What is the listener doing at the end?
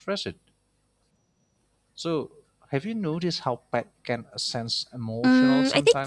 taking over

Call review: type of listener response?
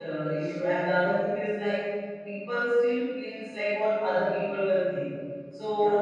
listening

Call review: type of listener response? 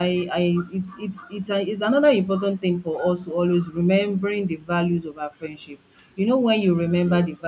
listening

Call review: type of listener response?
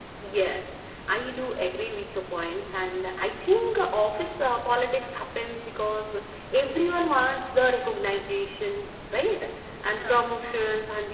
listening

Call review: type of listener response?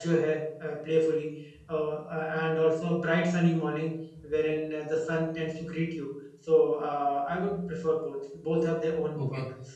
taking over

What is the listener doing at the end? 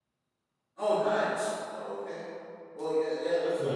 listening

